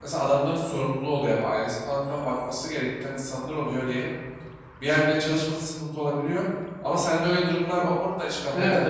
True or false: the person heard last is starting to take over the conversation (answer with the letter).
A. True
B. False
A